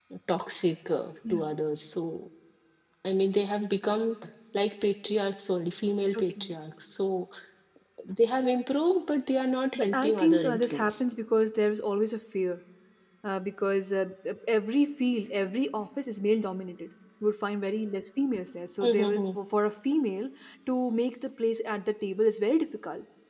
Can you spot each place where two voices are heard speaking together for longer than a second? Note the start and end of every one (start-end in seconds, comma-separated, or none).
9.8-11.0